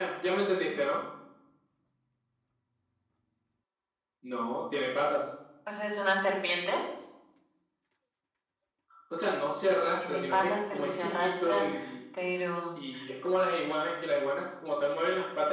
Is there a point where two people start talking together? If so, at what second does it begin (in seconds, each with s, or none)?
10.0 s